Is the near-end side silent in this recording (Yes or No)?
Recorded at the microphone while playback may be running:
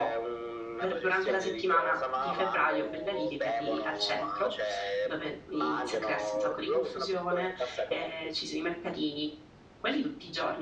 No